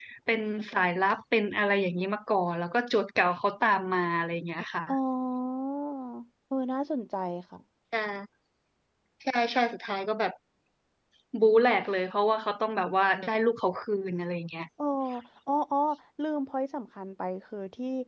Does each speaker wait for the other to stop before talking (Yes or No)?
Yes